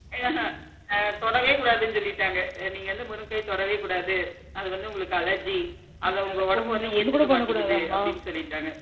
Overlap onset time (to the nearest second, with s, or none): 6 s